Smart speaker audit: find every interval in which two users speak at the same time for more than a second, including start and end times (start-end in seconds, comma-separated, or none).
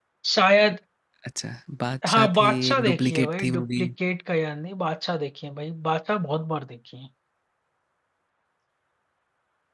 2.1-3.8